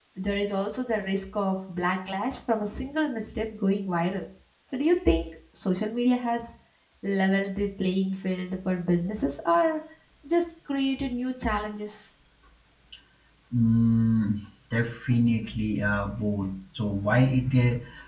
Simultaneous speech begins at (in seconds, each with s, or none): none